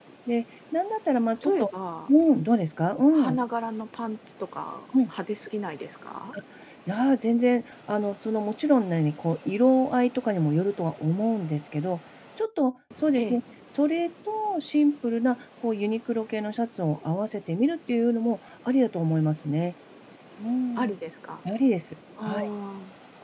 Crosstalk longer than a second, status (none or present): none